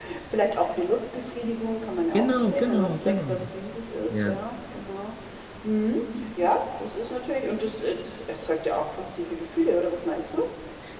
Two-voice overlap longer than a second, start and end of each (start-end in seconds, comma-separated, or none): 2.1-3.5